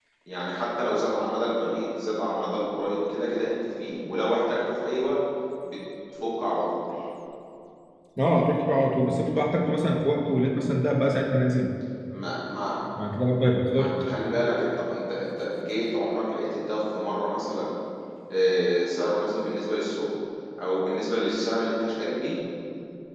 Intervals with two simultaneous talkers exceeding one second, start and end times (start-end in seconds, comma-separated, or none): none